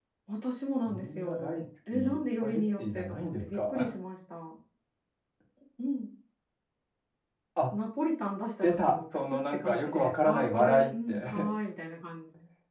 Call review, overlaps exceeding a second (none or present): present